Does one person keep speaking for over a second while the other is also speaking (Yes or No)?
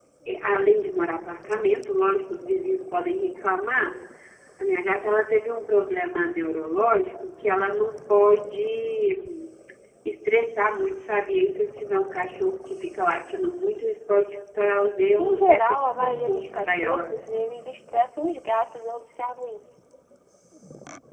Yes